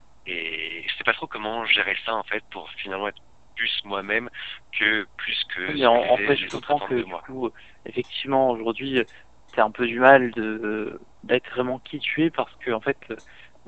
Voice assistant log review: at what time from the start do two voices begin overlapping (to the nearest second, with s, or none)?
6 s